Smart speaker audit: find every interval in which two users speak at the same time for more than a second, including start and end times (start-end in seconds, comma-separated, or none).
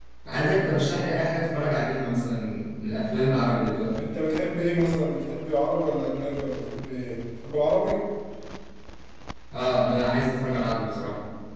none